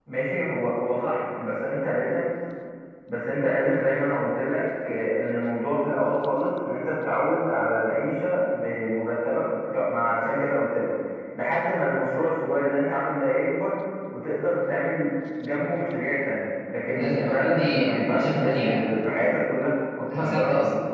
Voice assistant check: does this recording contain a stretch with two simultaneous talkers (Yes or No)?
Yes